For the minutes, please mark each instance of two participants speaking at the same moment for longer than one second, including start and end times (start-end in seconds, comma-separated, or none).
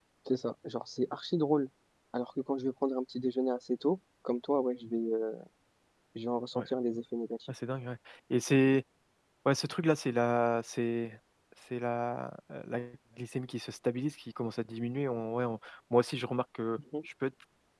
none